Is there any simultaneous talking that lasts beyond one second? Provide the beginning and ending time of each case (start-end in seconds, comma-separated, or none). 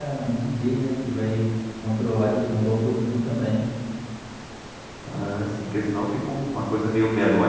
none